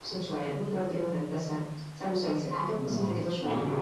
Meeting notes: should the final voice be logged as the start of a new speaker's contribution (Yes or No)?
Yes